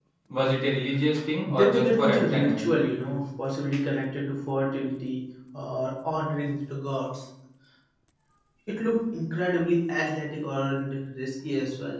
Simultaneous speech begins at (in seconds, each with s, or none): 1.5 s